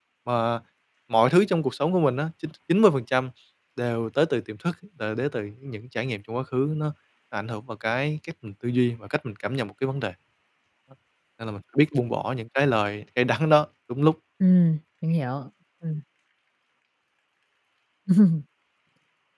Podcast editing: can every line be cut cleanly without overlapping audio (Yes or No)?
Yes